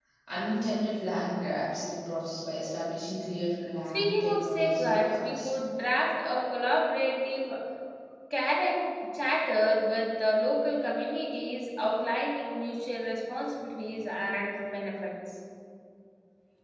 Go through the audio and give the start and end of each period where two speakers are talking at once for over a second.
3.9-5.5

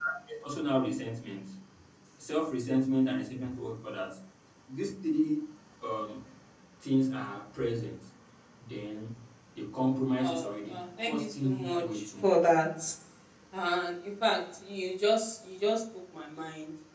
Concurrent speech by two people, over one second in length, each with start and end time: 10.2-12.3

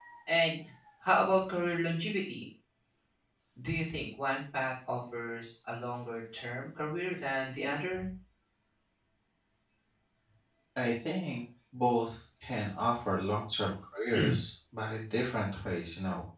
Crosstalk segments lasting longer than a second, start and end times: none

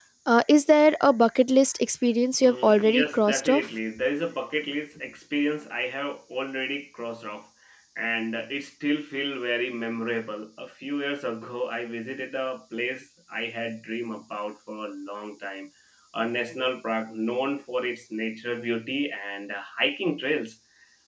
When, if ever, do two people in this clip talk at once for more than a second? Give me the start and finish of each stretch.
2.4-3.7

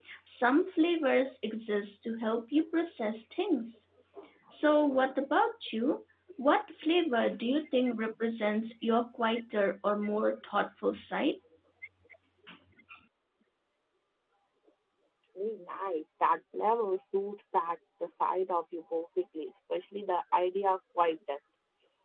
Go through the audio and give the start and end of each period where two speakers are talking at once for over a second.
none

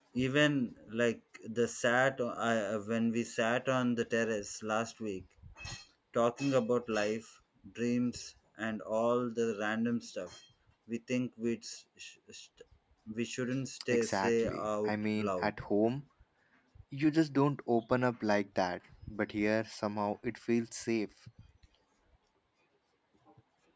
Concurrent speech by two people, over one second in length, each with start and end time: 13.9-15.5

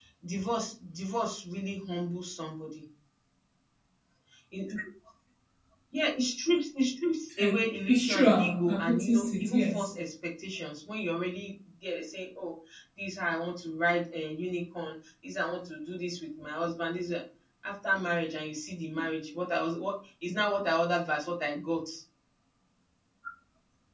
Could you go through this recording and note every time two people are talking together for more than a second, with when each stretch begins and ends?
7.9-9.9

